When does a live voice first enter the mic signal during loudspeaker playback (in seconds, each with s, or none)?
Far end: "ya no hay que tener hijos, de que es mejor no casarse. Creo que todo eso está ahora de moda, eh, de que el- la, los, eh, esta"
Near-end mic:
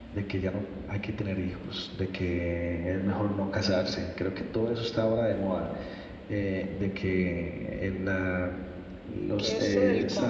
9.4 s